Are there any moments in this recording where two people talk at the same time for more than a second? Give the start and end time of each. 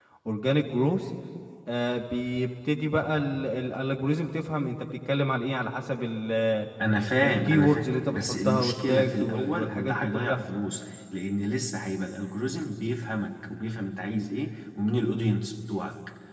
7.2-10.4

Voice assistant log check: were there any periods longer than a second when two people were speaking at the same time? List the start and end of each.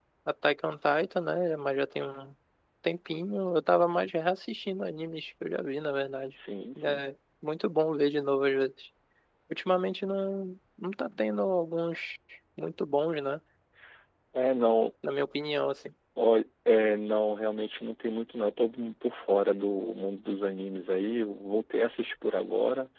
none

